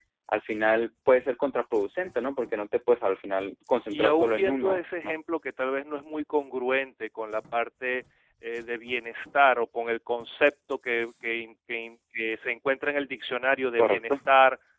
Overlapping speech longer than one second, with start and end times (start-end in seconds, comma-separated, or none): 3.9-5.2